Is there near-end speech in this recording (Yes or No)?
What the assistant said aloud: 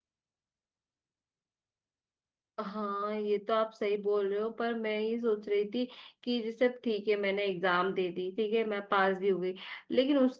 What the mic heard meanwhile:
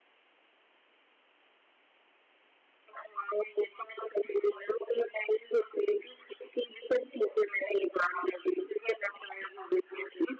No